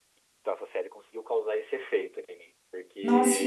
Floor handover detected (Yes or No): Yes